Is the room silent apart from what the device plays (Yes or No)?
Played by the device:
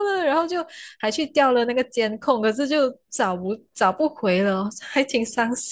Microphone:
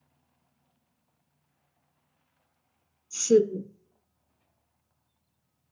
No